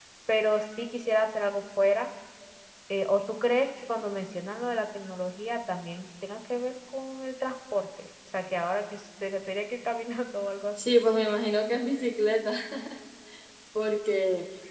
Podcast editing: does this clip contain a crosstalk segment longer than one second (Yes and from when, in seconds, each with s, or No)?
No